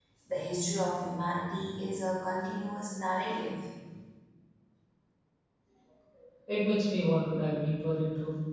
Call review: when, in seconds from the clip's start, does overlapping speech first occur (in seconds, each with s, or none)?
none